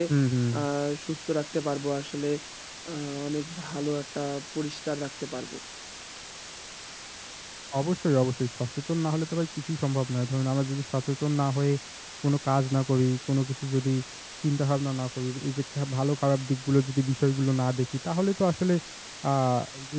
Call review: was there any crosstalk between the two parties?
No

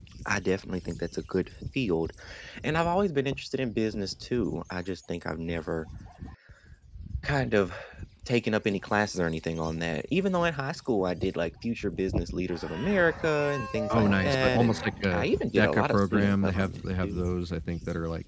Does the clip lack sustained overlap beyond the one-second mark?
No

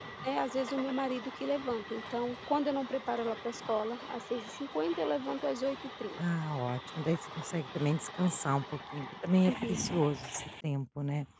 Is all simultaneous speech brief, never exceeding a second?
Yes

